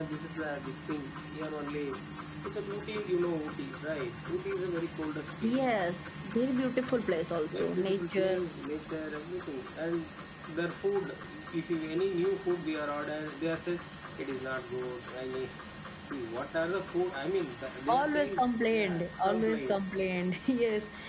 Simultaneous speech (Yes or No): Yes